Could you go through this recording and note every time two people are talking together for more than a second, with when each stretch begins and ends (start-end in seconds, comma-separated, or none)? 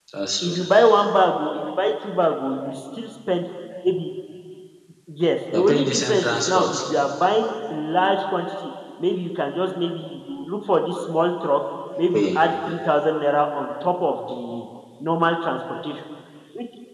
5.5-6.7